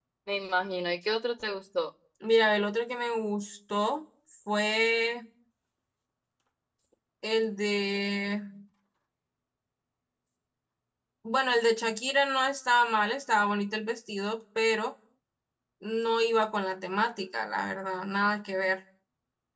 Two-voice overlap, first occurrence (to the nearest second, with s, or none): none